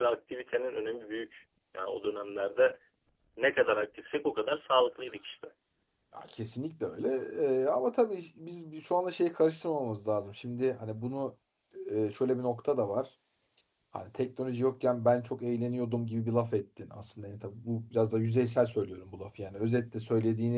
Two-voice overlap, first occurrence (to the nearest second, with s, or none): none